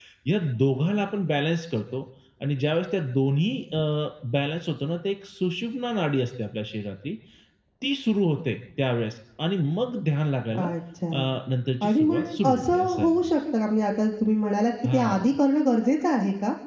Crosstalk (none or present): present